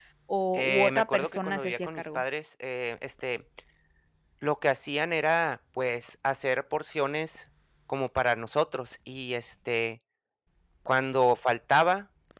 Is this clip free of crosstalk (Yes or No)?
No